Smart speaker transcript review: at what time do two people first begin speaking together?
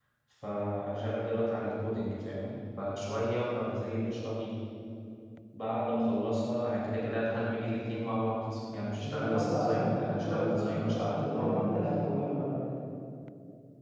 9.0 s

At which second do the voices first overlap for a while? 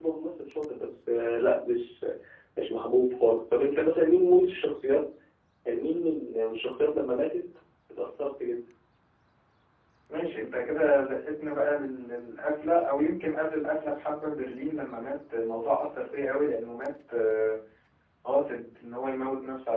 none

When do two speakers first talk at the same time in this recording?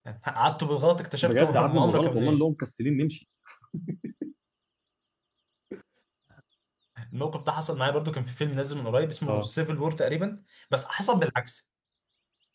1.2 s

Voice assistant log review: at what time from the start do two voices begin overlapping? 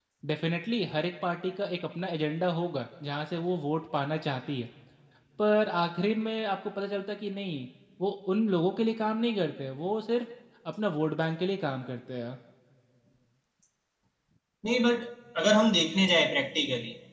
none

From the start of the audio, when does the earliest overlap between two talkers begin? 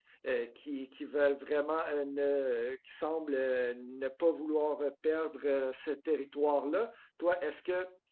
none

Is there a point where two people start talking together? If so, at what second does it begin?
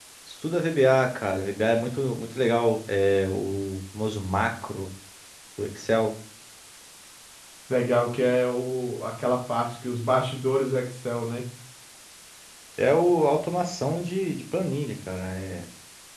none

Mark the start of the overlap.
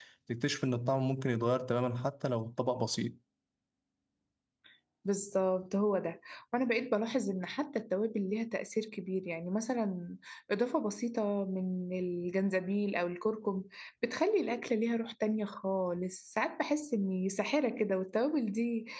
none

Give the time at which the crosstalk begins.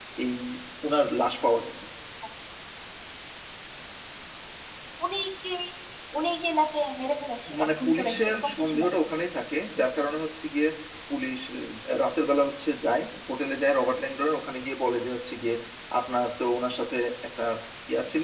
7.5 s

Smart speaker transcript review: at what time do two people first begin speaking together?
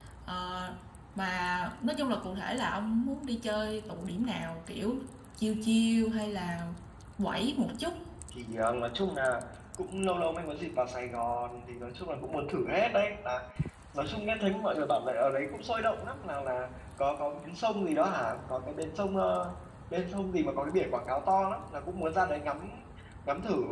none

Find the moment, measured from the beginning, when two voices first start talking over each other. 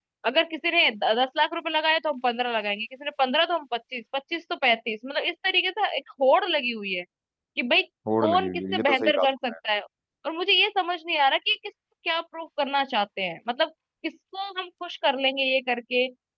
8.2 s

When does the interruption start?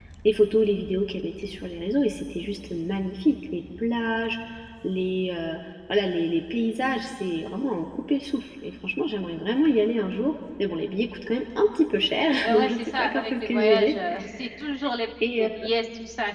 12.4 s

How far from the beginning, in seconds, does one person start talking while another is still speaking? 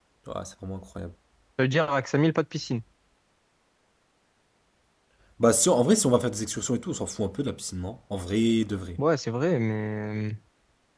none

